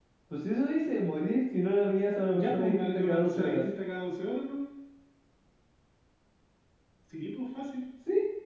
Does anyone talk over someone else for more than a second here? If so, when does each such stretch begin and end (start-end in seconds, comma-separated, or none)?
2.3-3.7